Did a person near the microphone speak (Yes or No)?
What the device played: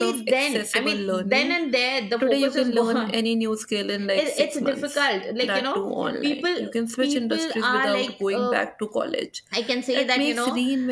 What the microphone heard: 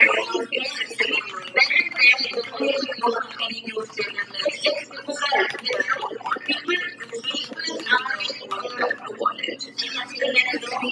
No